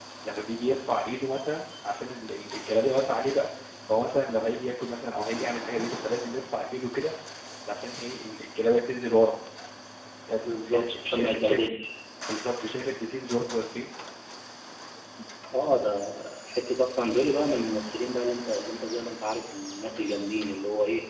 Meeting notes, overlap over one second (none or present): present